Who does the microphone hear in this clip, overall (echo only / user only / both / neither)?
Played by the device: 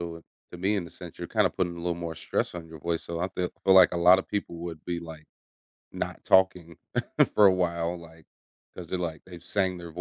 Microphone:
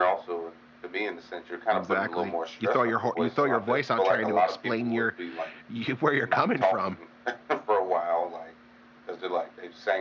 both